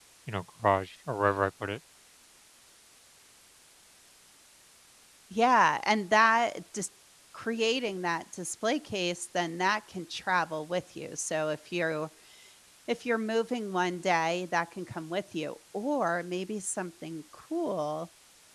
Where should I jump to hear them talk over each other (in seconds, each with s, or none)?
none